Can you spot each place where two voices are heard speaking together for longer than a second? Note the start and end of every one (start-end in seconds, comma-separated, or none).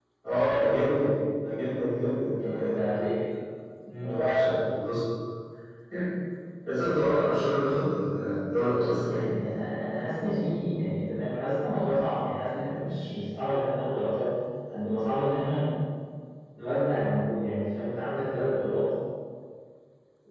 none